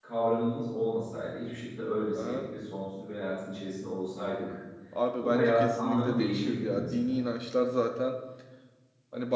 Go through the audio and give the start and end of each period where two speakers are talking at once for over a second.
5.2-7.2

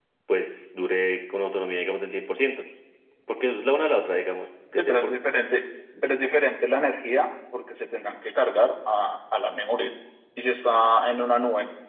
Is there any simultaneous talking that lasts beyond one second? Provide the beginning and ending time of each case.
none

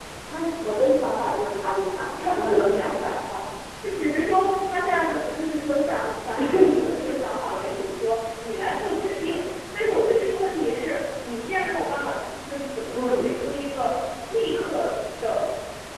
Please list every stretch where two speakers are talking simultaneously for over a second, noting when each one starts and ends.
1.6-3.2

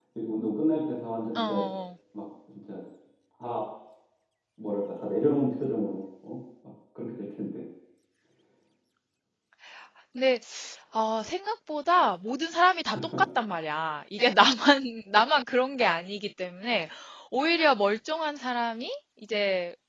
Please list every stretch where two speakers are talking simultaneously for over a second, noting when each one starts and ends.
none

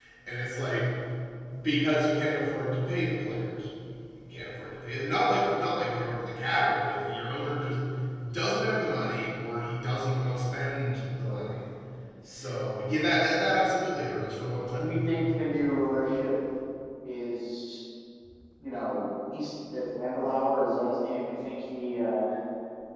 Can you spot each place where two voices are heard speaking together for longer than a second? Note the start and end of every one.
none

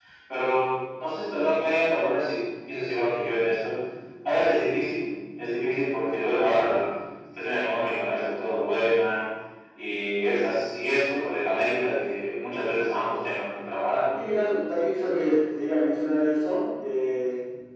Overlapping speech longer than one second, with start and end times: none

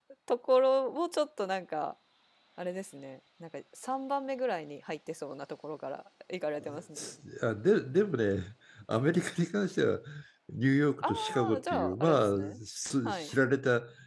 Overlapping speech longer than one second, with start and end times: 11.0-12.6

